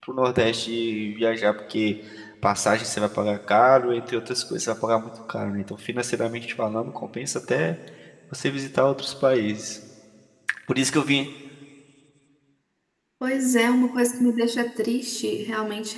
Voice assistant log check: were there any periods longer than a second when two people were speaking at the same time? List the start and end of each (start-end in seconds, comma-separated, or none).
none